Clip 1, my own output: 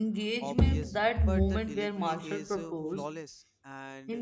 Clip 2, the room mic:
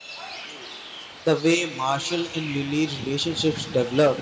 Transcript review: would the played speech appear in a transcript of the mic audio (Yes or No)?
No